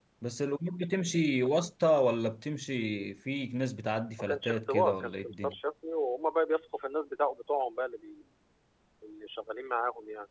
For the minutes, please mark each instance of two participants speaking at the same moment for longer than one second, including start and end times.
4.2-5.5

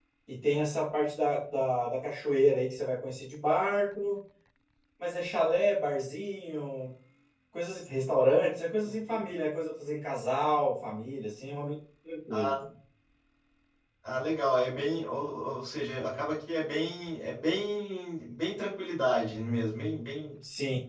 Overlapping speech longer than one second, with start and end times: none

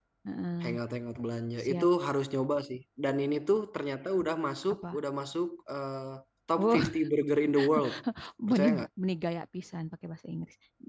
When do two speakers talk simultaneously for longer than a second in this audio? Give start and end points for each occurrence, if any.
none

